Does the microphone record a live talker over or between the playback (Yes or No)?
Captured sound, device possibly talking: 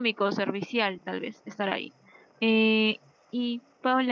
Yes